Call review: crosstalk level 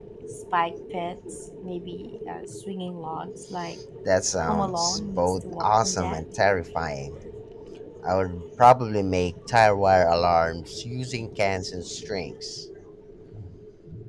present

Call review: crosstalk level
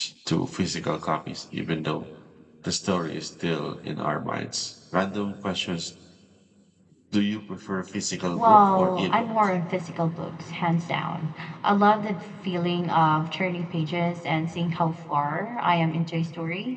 present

